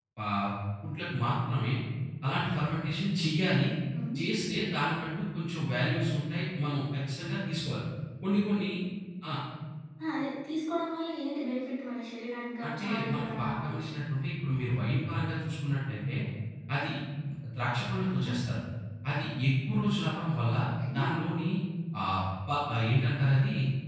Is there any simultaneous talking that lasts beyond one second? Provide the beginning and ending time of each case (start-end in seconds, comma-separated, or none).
12.6-13.9